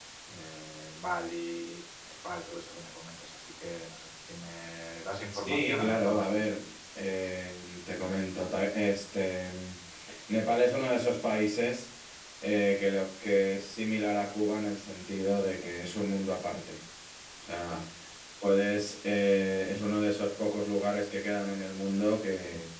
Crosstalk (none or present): present